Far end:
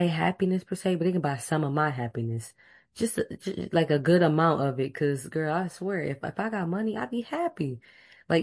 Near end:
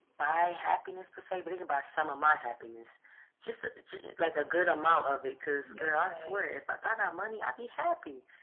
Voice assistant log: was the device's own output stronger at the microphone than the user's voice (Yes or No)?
Yes